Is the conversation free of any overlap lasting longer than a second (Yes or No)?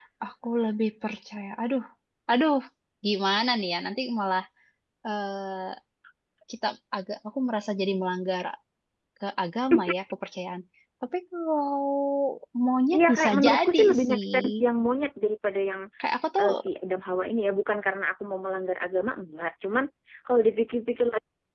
No